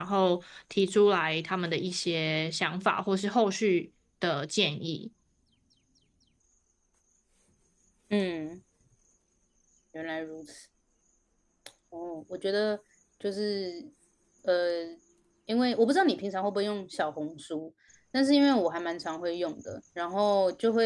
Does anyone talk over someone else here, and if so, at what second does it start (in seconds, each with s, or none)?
none